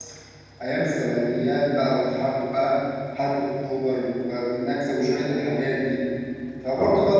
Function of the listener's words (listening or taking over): listening